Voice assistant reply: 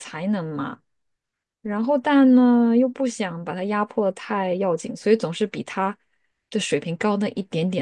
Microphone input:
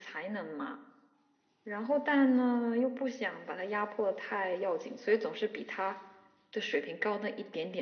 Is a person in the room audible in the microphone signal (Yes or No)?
No